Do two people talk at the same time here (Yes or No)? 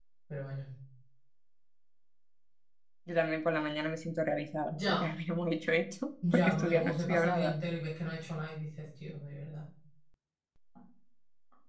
Yes